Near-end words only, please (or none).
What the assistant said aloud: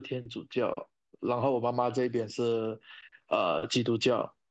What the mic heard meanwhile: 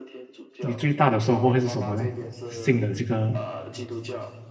你最大的收获会是什么呢？信了这个